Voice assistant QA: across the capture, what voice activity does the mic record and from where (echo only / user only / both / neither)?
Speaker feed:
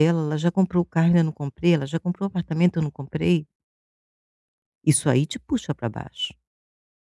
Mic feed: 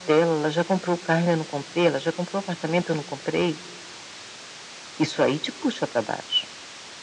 echo only